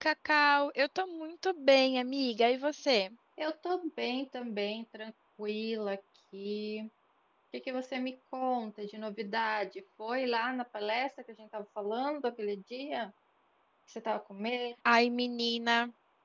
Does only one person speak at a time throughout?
Yes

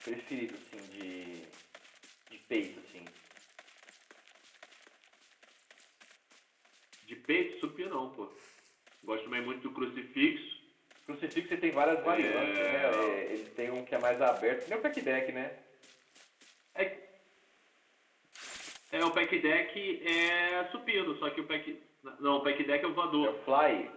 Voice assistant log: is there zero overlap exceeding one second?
No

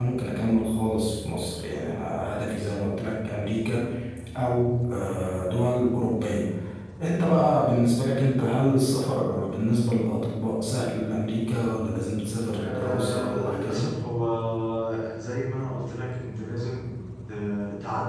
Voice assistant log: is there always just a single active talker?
No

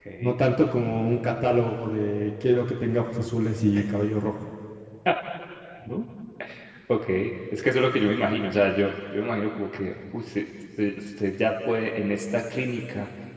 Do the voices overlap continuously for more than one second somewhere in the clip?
No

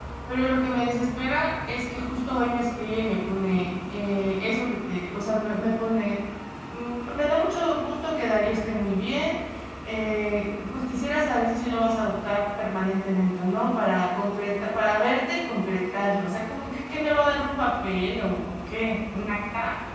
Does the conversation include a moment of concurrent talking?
No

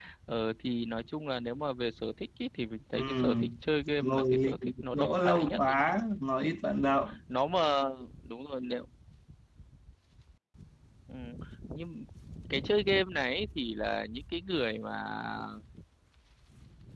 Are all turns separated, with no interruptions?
No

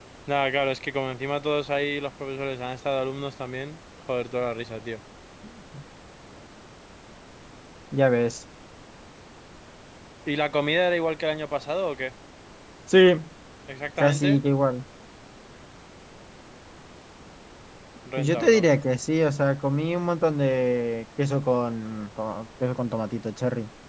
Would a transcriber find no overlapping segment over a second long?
Yes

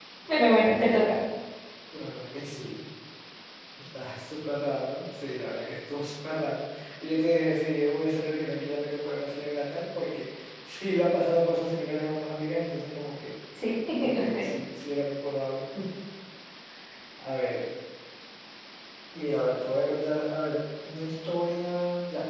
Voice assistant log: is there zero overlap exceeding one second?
Yes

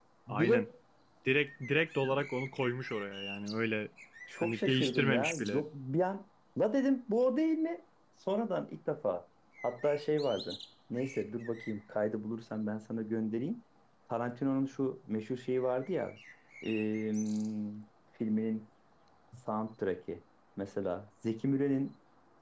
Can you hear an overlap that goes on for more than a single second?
Yes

